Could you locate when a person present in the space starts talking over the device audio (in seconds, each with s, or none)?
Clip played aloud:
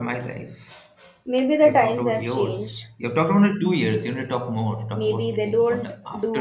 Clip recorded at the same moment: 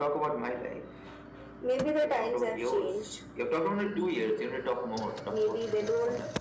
none